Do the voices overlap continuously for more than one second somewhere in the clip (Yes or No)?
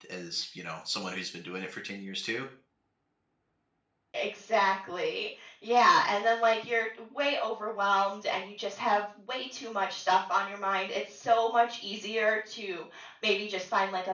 No